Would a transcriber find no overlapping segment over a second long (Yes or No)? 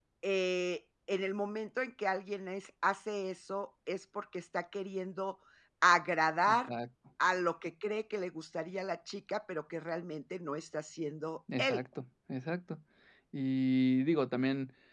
Yes